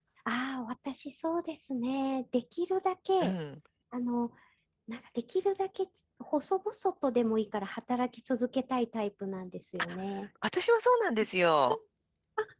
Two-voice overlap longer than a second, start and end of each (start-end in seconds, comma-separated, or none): none